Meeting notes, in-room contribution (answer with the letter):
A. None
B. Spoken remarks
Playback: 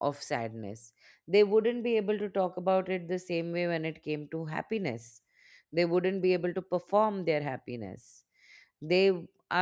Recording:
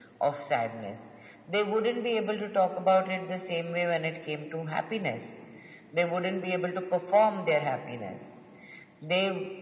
A